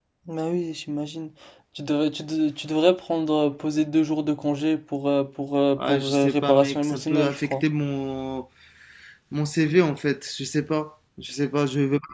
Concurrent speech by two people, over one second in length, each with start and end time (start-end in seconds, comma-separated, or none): 5.8-7.6